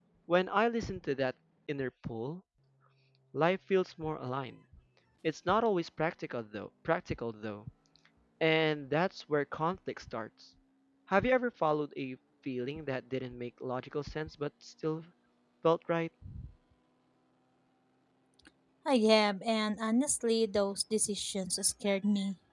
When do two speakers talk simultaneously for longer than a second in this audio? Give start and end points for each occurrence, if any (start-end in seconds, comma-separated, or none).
none